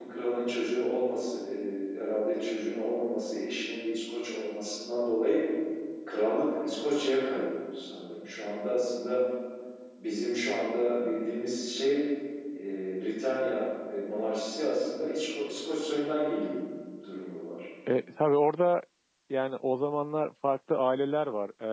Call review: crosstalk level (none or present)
none